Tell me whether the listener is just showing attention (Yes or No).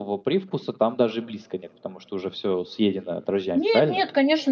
No